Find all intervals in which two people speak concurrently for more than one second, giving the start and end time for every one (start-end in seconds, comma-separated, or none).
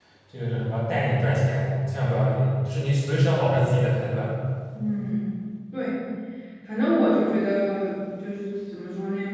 none